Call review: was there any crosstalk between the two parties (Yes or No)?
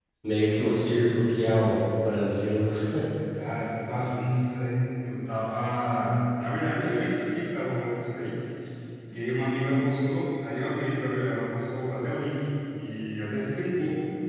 No